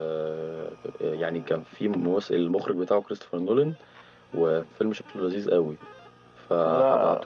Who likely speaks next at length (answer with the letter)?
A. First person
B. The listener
A